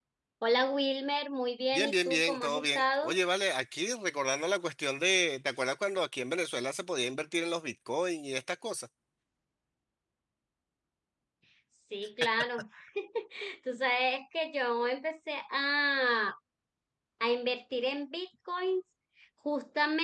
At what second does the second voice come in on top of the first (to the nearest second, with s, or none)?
2 s